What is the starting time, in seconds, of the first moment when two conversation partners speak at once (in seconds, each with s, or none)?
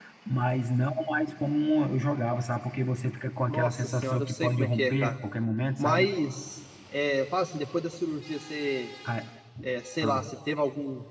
3.5 s